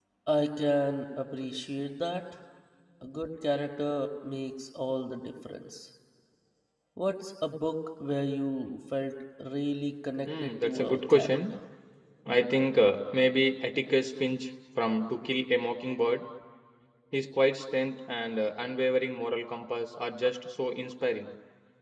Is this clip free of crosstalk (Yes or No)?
No